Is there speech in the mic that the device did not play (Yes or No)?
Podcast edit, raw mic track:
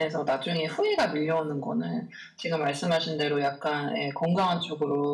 Yes